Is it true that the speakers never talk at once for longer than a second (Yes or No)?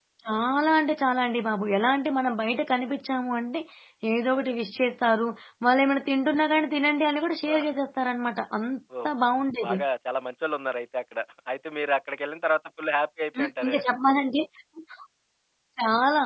Yes